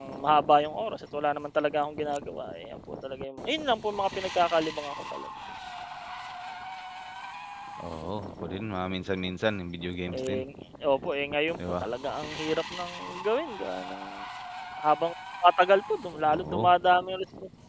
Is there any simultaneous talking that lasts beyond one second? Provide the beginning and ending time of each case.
none

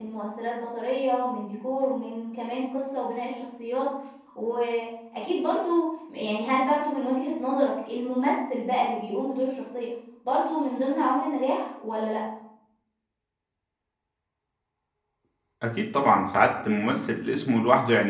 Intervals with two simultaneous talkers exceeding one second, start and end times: none

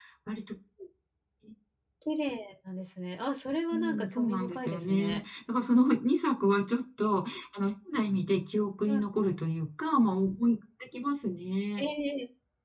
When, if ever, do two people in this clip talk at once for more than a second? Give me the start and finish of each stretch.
3.7-5.2

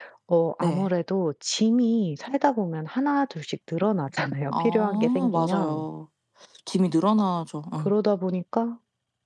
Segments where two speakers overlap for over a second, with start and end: 4.5-5.8

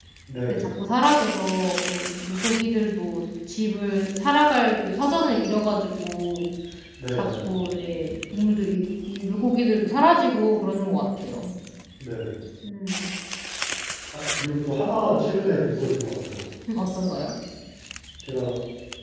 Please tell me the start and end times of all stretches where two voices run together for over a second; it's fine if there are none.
none

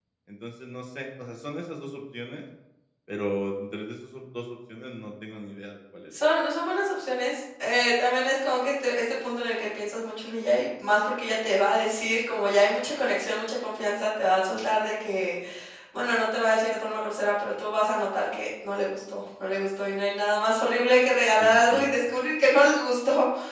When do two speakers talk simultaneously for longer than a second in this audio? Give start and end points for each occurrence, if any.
none

